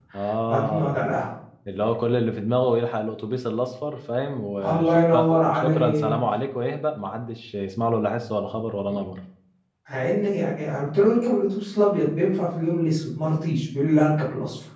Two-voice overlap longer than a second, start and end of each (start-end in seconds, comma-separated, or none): 4.6-6.1